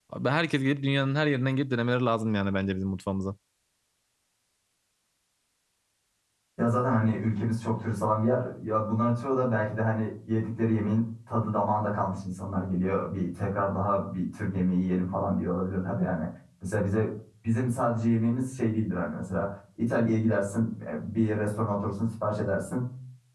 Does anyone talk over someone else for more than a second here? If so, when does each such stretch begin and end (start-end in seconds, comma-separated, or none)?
none